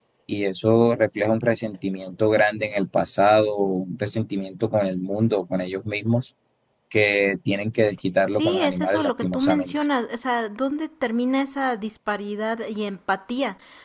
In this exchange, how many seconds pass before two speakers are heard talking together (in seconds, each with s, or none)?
8.3 s